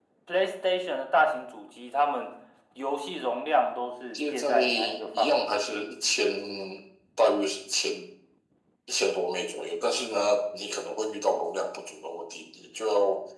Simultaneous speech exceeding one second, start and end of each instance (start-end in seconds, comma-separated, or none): 4.1-5.9